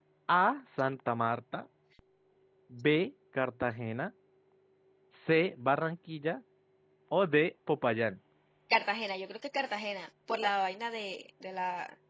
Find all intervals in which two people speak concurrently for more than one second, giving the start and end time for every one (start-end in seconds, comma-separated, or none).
none